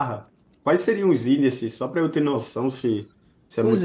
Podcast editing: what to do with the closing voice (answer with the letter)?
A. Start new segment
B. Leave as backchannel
A